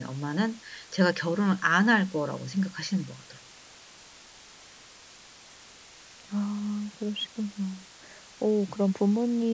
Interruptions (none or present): none